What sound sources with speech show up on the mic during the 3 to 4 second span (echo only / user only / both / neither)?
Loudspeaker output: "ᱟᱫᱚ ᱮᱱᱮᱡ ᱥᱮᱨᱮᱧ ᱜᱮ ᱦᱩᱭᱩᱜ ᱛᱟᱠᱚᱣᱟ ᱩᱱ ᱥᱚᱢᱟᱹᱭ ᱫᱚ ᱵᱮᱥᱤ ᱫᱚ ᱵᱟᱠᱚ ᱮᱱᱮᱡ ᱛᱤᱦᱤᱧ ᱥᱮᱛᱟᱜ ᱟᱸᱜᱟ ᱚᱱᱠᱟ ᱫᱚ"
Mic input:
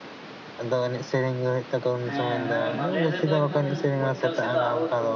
both